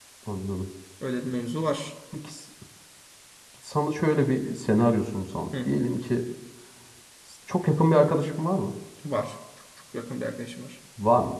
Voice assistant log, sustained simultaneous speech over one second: none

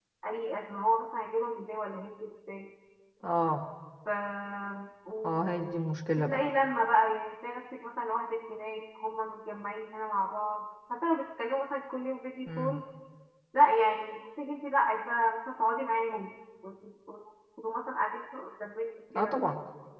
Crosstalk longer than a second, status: none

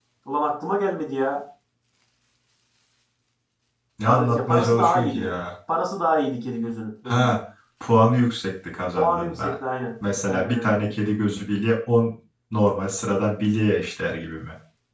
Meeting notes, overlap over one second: present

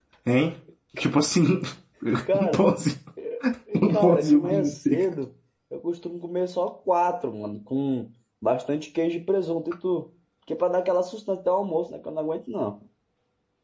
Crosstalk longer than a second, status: present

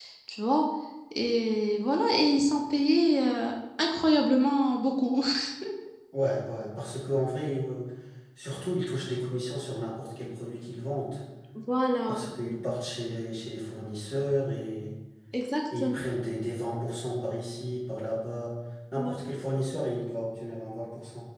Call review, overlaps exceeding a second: none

